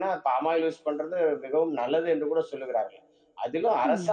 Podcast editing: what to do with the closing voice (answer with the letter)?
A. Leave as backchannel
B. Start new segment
A